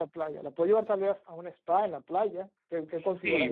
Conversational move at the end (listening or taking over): taking over